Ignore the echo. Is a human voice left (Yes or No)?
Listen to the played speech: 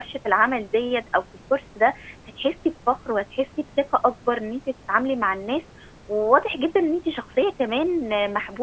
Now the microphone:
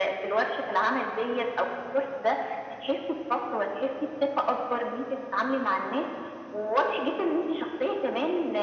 No